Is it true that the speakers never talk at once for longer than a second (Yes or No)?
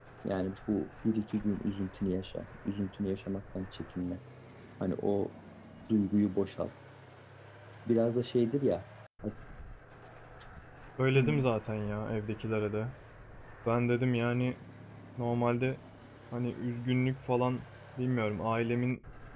Yes